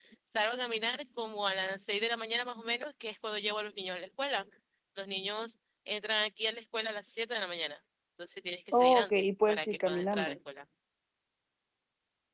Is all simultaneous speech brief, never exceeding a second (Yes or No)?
No